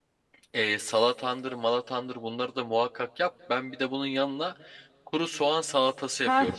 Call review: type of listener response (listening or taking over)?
taking over